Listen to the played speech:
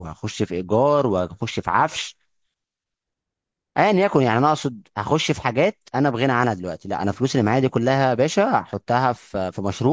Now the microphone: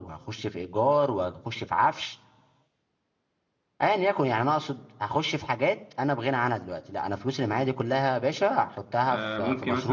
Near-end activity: present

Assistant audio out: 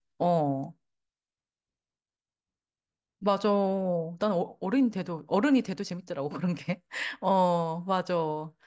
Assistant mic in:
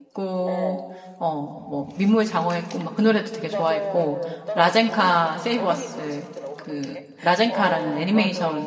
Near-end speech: present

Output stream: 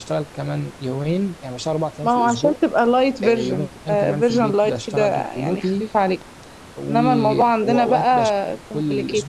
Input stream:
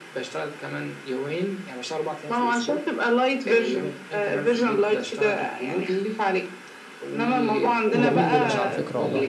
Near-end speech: present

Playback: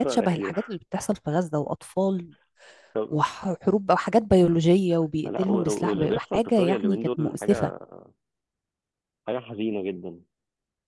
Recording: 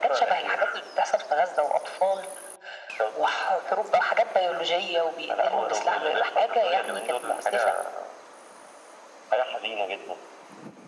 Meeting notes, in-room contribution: none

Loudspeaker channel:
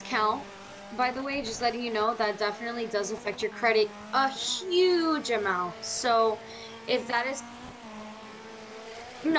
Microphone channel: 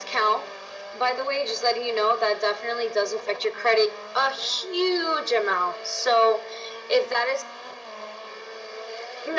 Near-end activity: none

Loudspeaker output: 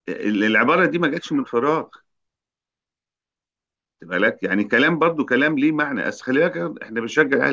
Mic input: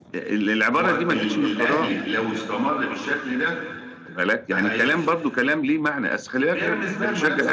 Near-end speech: present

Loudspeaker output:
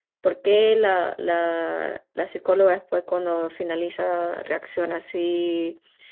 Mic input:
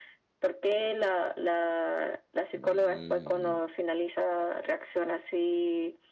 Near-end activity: present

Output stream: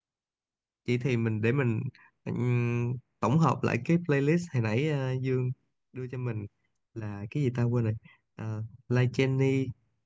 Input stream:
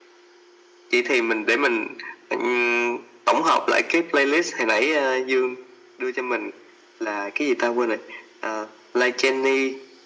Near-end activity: none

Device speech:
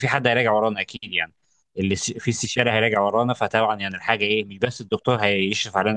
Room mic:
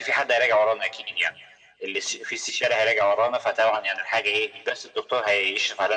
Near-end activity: none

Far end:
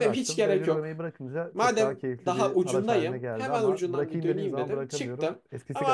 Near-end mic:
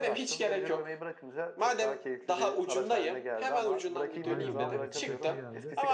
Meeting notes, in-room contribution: present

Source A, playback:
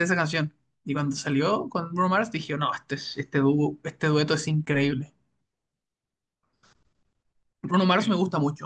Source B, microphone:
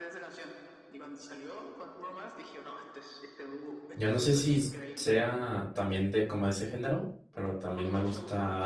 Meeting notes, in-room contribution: present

